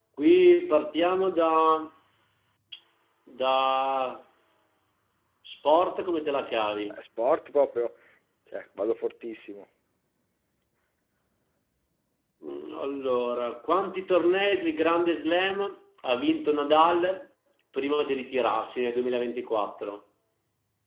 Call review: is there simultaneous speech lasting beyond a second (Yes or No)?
No